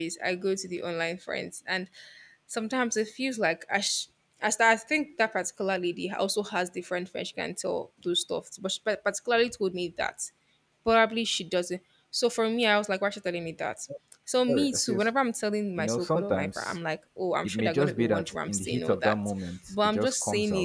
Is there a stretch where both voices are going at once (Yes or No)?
Yes